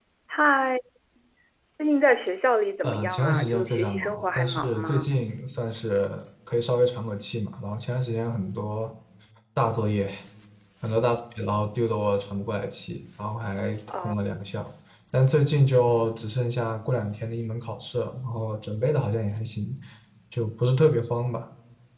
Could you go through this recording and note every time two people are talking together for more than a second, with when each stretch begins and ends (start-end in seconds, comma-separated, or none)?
2.8-5.1